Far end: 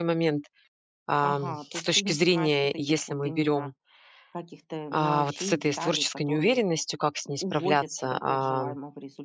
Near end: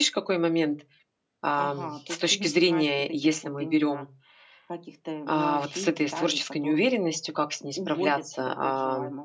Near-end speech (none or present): none